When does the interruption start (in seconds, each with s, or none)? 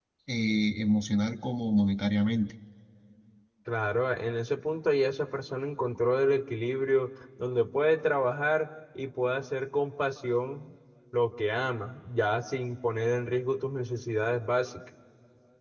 none